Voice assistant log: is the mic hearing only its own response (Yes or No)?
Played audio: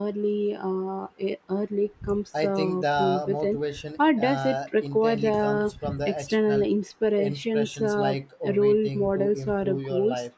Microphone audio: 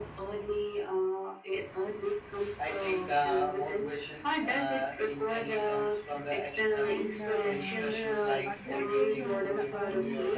No